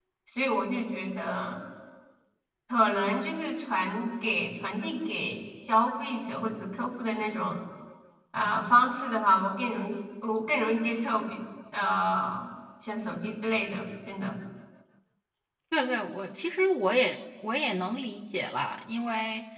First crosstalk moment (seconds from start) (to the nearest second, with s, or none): none